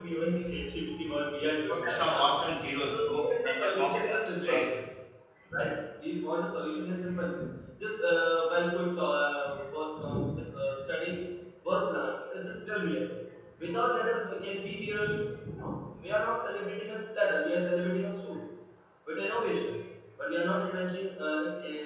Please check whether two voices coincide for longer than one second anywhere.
Yes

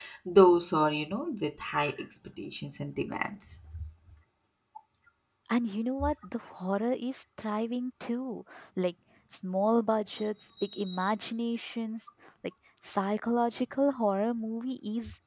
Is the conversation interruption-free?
Yes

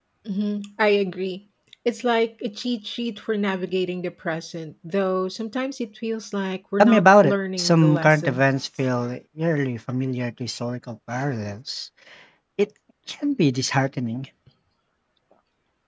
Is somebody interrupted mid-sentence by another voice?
Yes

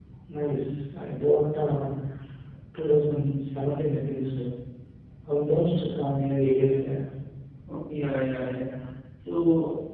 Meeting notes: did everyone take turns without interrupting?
Yes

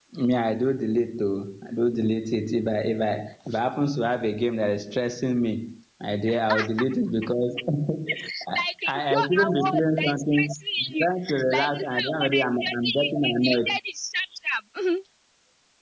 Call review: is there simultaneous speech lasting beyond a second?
Yes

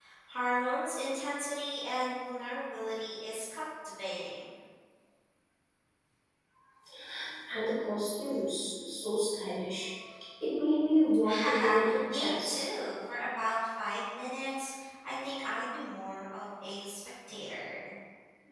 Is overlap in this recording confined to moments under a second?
No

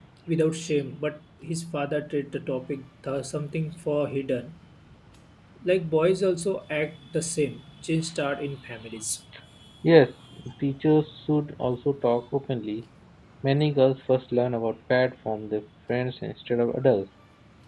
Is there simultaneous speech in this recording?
No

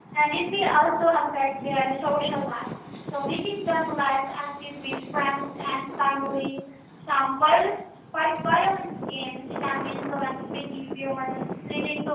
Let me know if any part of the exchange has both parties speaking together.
No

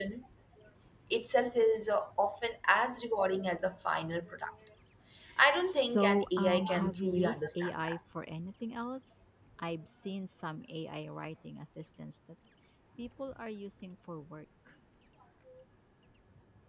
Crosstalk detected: Yes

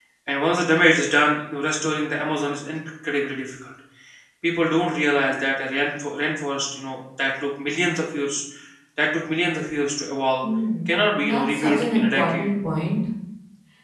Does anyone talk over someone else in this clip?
Yes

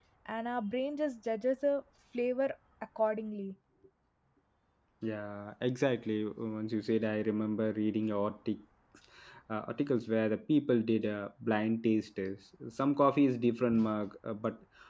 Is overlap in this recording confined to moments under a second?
Yes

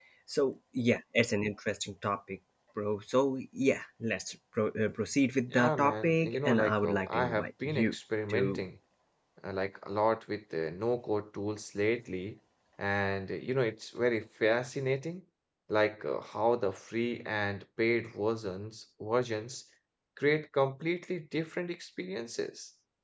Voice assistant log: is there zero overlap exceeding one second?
No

